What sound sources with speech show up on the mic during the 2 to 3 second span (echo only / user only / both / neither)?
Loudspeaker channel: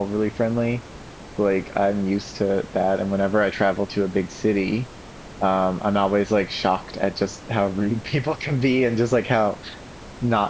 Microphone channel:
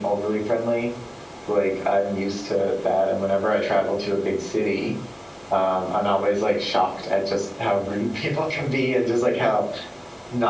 echo only